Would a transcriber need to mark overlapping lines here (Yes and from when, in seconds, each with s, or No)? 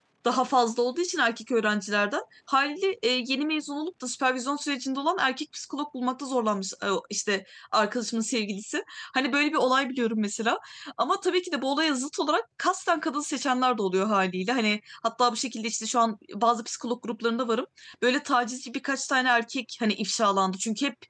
No